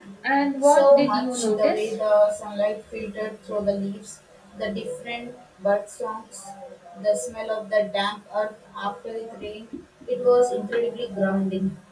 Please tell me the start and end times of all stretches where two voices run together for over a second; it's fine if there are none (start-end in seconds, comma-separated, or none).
0.6-1.9